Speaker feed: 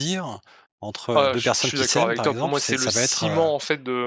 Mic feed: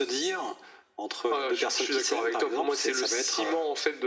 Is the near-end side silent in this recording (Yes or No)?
Yes